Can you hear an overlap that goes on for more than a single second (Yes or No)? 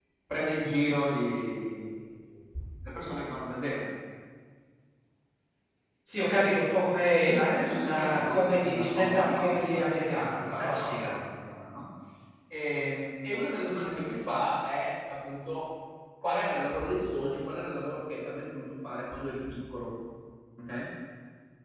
Yes